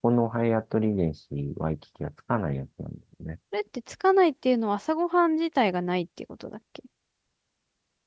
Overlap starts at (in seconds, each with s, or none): none